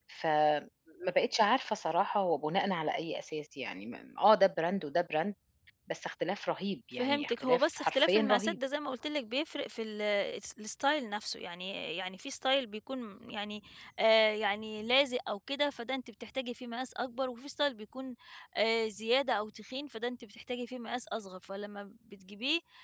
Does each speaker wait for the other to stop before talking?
No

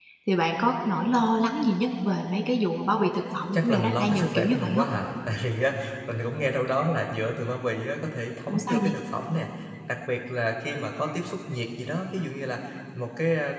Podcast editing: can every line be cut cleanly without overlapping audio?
No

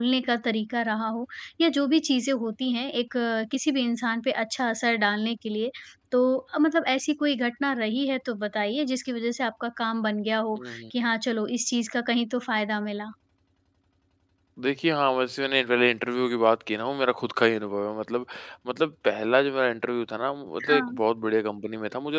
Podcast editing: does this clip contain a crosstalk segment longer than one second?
No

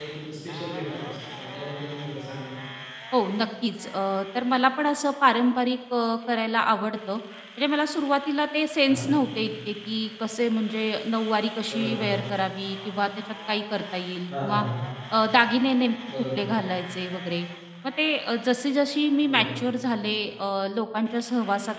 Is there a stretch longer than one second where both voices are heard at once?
No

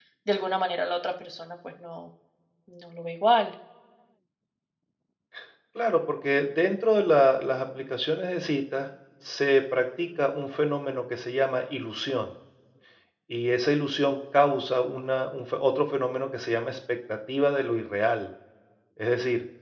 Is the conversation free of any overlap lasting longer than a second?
Yes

